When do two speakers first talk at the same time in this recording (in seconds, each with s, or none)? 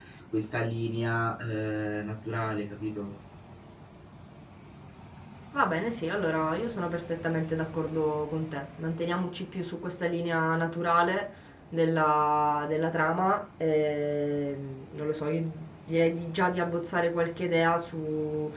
none